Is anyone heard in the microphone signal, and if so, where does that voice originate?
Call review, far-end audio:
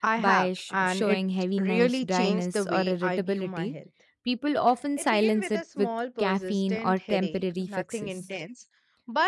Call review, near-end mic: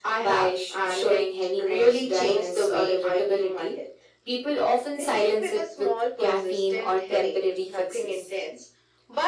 echo only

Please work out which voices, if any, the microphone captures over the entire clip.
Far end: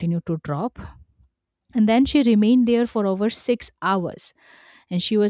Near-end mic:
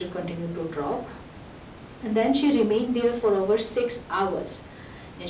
echo only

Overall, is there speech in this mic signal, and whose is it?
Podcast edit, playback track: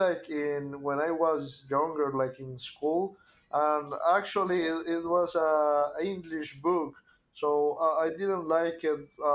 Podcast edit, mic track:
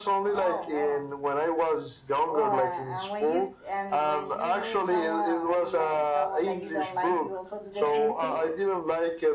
both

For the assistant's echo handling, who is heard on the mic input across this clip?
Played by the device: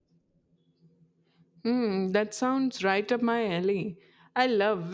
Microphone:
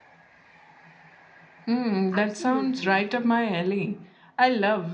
both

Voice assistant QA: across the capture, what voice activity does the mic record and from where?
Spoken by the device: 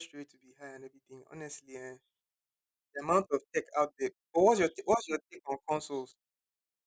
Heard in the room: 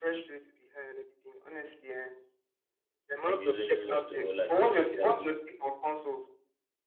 both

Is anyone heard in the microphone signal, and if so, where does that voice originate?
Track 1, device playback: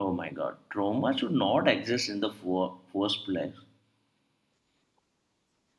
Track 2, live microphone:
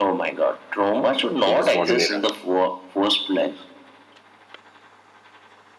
both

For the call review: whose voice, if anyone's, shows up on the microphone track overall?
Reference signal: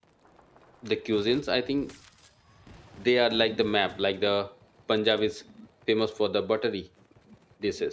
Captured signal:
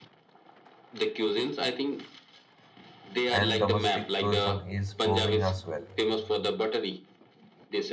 both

